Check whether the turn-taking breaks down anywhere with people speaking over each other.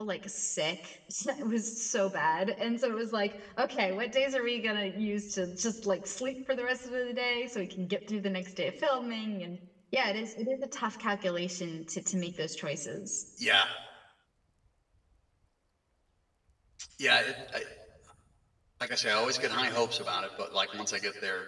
No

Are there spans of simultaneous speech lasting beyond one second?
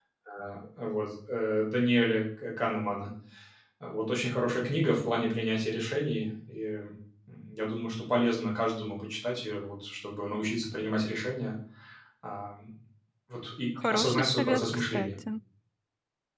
Yes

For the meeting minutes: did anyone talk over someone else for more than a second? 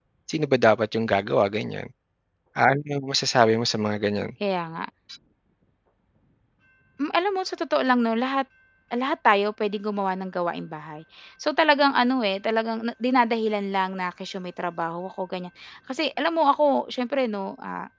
No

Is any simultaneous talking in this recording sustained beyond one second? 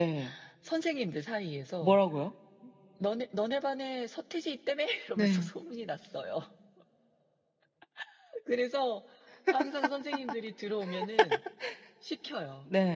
No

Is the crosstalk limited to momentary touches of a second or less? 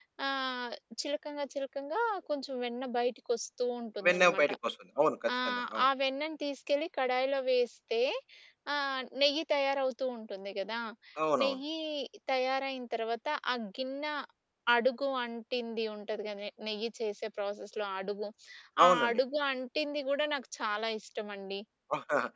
Yes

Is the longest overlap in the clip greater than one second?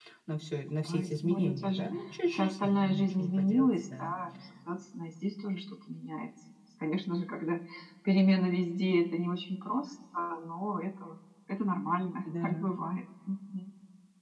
Yes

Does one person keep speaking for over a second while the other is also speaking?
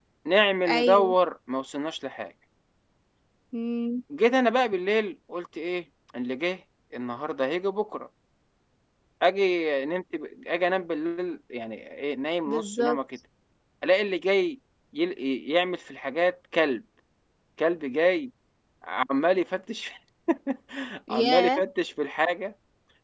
No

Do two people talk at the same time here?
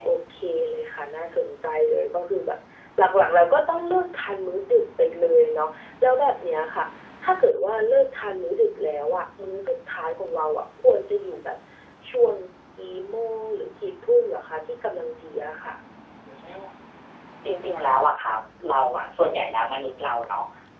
No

